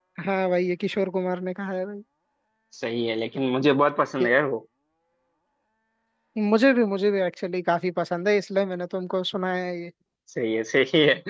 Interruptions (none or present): none